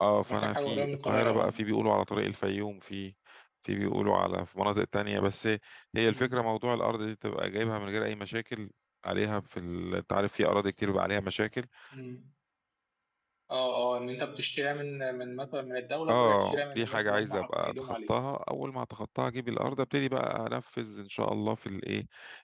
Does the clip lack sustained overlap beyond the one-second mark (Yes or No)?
No